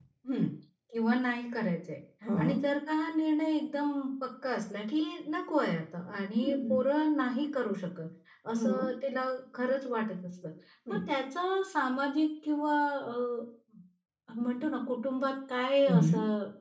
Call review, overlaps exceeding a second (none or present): none